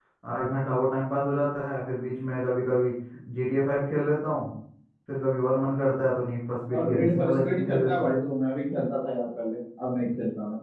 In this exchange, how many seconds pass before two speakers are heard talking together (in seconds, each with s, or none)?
6.8 s